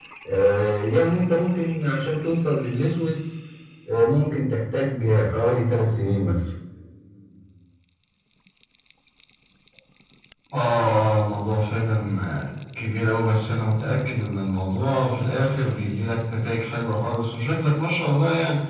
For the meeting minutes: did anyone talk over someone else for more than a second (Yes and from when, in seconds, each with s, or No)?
No